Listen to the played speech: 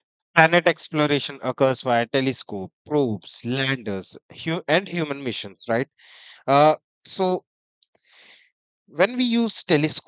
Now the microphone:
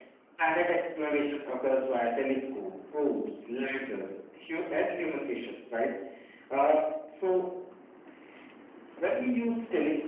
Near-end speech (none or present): none